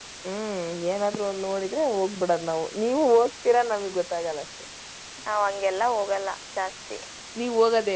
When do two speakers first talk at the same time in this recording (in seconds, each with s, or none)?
none